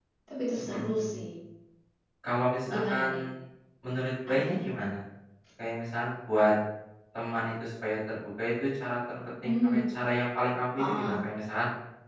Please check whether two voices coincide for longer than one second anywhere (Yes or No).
No